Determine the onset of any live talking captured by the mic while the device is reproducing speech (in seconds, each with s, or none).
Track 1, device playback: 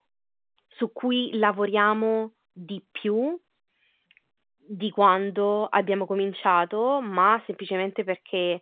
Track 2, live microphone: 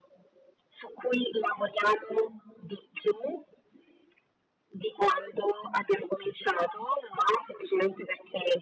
none